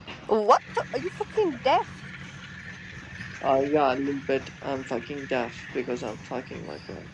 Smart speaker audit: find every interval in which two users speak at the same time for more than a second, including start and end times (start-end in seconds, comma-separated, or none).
none